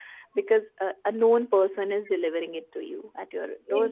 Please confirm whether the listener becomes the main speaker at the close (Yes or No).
Yes